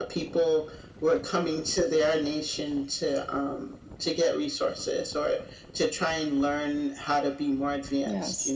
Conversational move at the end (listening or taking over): listening